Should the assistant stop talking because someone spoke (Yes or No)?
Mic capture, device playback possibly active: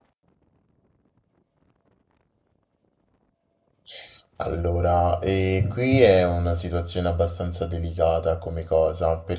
Yes